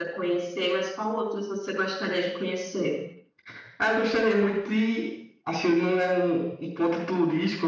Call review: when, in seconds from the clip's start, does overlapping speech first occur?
none

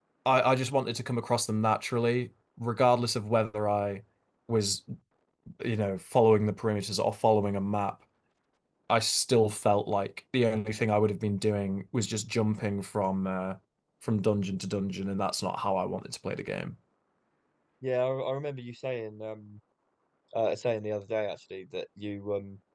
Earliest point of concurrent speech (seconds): none

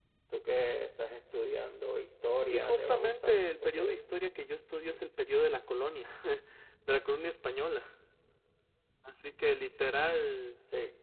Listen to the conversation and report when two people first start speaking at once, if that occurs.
2.5 s

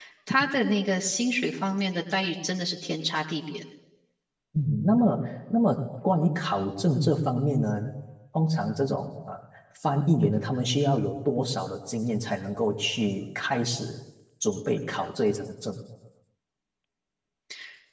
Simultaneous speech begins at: none

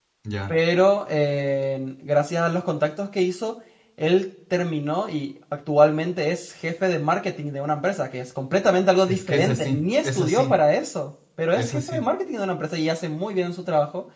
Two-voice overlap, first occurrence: 9.1 s

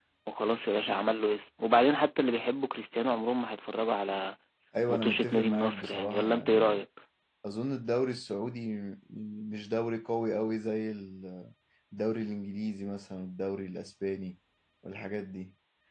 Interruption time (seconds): 4.9 s

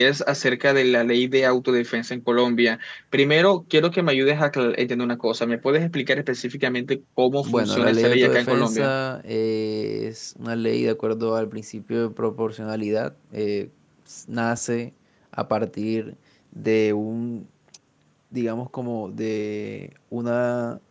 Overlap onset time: 7.4 s

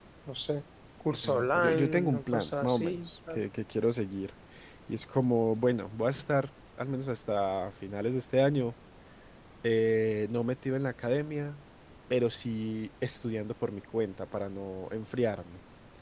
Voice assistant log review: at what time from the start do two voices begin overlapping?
1.2 s

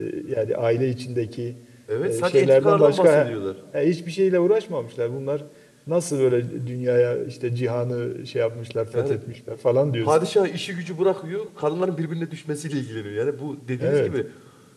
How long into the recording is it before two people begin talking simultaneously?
2.0 s

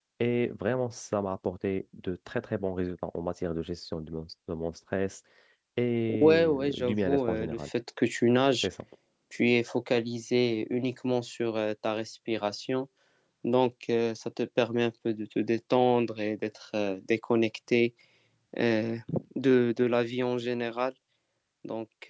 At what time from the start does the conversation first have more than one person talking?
6.2 s

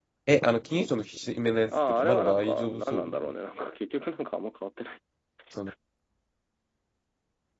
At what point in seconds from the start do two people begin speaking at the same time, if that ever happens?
1.7 s

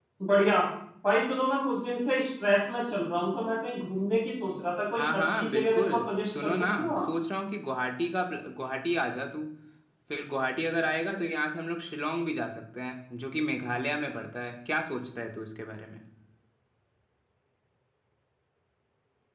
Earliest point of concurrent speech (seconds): 5.0 s

